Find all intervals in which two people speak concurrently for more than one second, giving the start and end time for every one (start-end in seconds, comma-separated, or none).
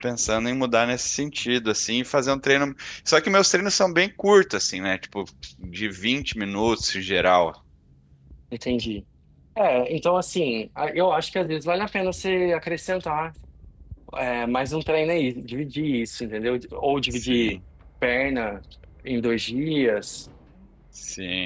none